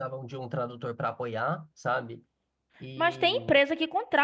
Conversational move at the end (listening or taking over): taking over